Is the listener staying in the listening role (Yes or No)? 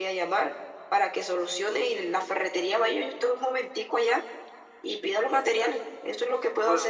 No